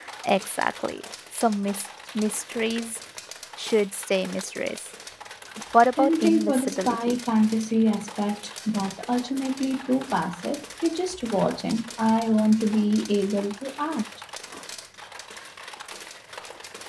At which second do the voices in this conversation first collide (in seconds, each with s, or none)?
6.0 s